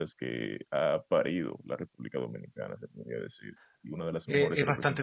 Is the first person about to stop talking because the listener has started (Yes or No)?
Yes